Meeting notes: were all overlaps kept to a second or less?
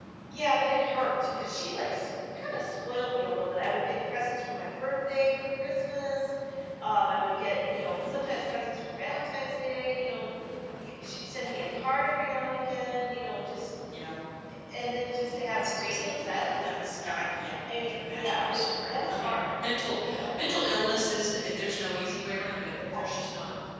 No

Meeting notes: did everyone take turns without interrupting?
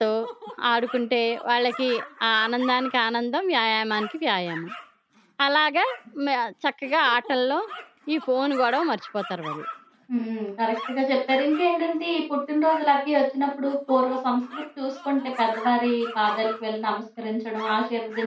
Yes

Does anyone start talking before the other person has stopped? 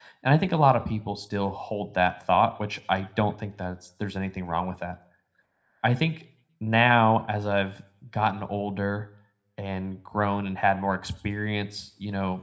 No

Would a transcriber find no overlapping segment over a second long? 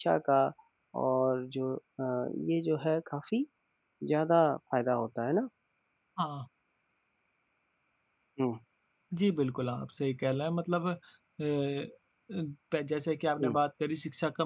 Yes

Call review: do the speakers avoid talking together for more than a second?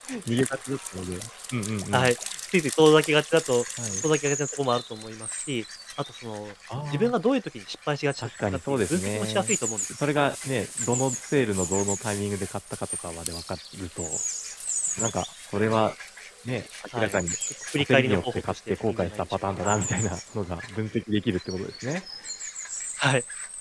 No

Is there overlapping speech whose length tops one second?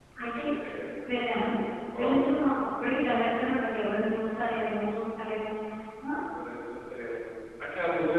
No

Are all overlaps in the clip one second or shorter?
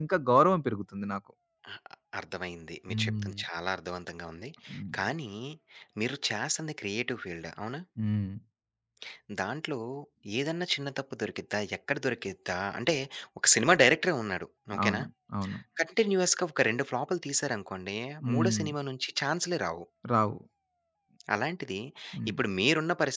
Yes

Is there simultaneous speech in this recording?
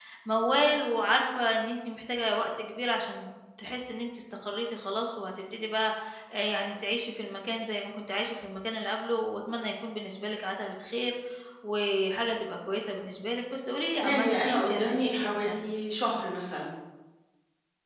Yes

